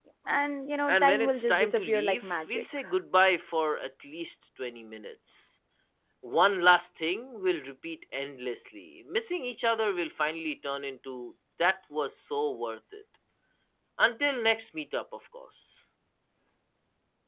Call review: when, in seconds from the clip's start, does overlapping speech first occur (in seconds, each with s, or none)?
0.9 s